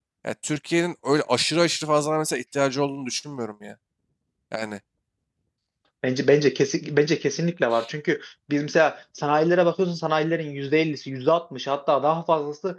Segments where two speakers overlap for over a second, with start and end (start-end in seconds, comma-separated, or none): none